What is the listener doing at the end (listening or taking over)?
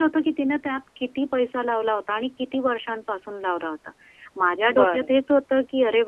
listening